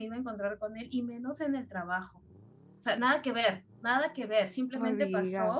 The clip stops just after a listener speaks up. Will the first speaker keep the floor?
Yes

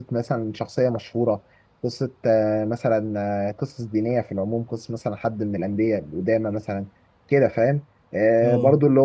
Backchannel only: Yes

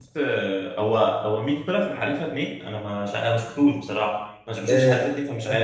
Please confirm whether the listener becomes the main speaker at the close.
Yes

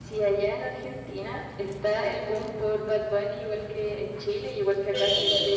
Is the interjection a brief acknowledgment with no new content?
No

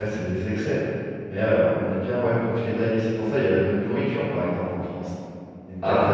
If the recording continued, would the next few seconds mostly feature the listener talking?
Yes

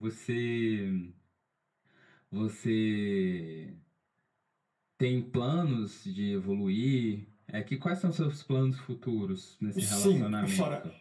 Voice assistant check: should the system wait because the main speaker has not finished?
No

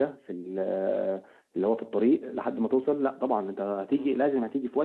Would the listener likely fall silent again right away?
Yes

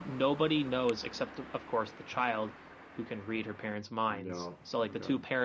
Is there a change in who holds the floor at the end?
No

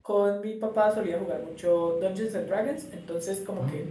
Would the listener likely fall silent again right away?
Yes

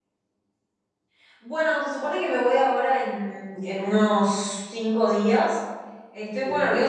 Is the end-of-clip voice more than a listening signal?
No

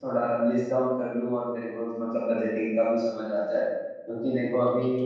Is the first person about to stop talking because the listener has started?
No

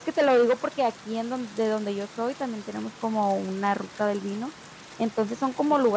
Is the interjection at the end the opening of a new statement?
No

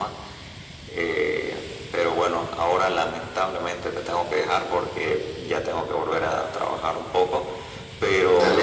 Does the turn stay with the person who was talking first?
Yes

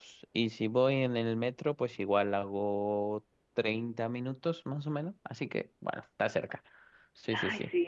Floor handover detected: Yes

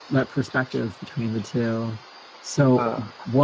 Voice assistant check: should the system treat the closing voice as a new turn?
No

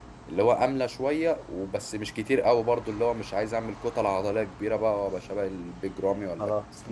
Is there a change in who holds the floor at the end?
Yes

